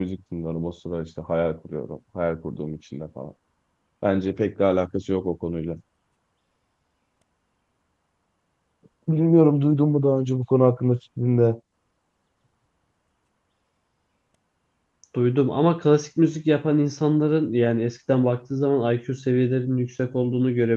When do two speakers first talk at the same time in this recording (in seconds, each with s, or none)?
none